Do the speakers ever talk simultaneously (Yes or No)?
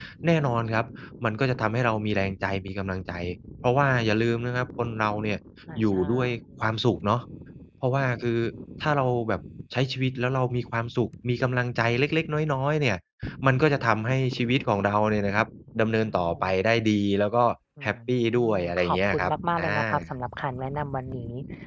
Yes